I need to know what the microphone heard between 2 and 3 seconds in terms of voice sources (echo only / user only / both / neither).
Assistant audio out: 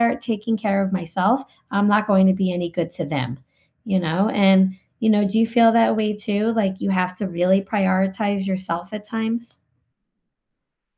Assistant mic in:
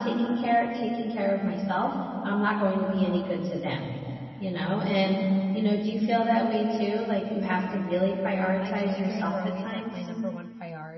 echo only